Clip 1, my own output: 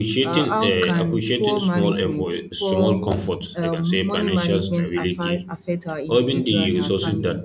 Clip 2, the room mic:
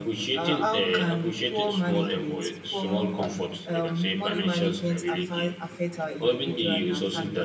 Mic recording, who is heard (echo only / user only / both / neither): echo only